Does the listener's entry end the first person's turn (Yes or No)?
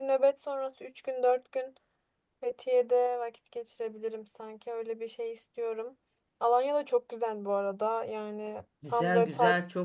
Yes